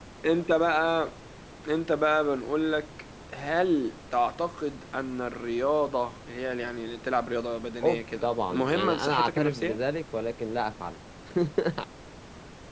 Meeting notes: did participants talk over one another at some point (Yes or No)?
Yes